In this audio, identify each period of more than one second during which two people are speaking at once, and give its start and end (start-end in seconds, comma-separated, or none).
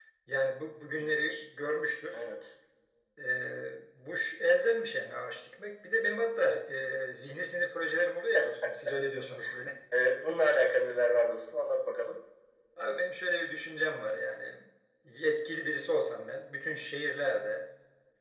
none